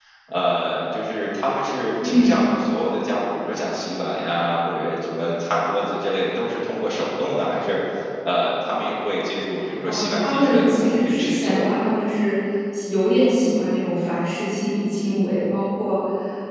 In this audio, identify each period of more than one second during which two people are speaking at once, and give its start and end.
9.8-11.7

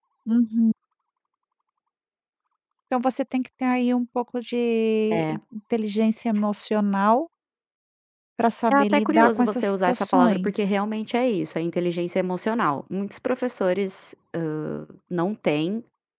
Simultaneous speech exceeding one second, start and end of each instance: 8.7-10.5

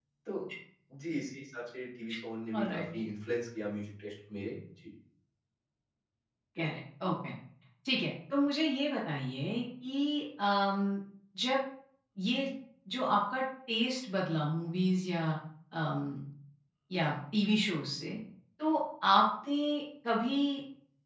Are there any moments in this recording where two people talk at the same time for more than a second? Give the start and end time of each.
none

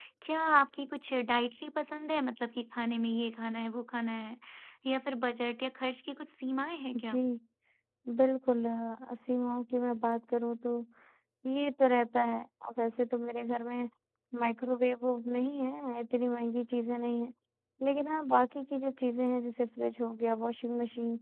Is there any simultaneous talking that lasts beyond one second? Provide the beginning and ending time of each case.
none

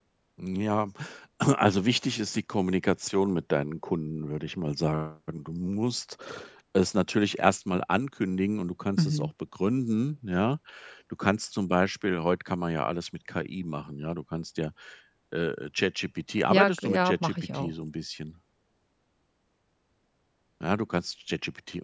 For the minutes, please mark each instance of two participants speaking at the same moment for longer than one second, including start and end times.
16.5-17.7

